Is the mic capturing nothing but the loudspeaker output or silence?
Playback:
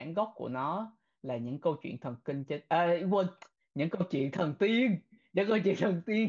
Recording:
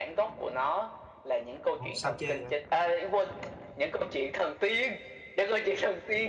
No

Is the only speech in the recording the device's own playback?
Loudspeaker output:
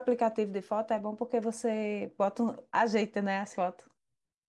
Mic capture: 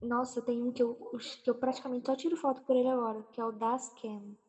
No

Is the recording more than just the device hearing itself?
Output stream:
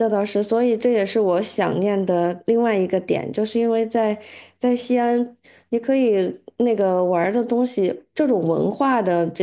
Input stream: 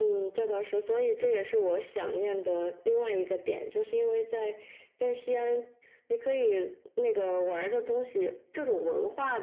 No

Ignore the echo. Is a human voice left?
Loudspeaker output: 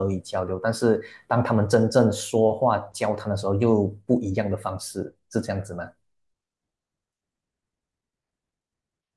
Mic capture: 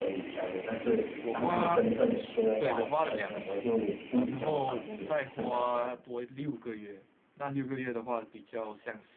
Yes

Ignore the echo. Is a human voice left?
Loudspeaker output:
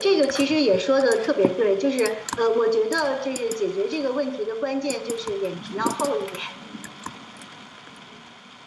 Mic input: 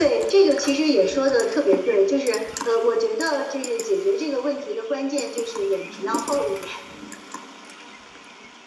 No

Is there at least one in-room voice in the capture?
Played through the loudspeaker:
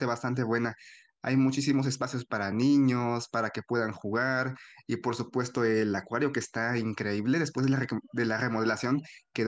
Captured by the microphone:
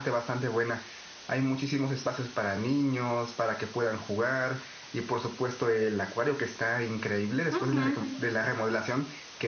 Yes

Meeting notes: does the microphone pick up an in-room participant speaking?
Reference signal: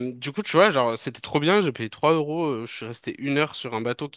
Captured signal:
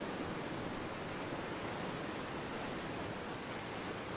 No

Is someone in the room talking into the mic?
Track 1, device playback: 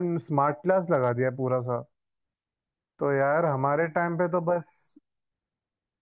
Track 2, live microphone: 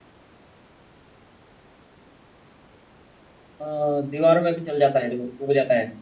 Yes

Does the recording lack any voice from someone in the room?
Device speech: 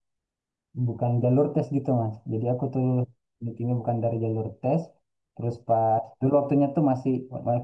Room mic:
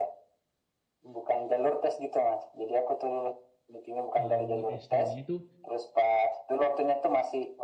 No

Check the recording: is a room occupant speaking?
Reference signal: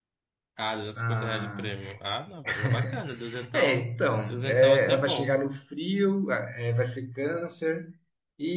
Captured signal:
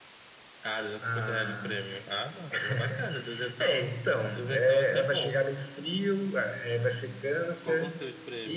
Yes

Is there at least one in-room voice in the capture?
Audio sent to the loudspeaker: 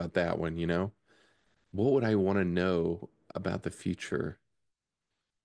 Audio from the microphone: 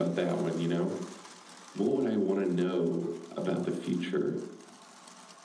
No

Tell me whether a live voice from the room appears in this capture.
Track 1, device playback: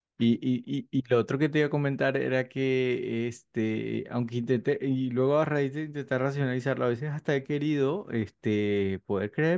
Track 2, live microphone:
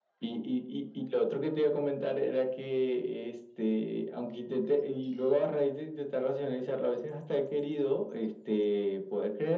No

